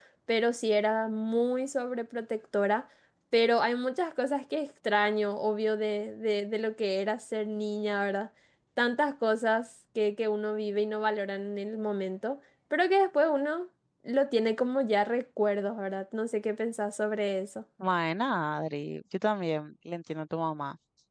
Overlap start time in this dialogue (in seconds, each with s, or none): none